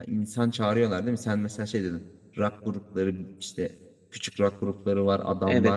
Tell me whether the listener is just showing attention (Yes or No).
No